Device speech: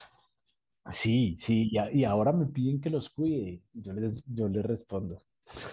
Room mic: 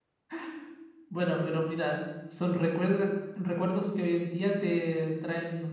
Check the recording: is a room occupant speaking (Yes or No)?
Yes